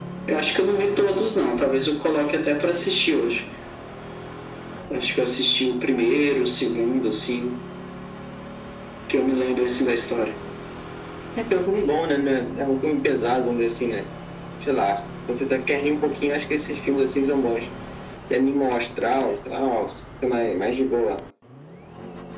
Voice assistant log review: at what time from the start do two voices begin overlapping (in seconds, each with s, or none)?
none